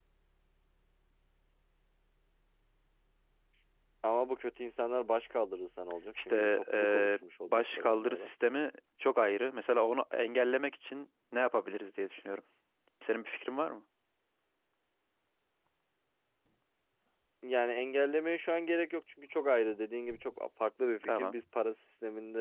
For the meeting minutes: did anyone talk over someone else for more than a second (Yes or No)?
Yes